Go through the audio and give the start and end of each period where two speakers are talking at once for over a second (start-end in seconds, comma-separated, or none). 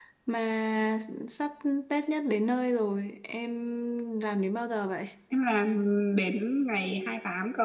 none